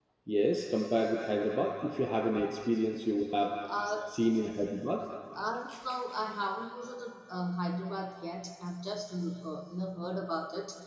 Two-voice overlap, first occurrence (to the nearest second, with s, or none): none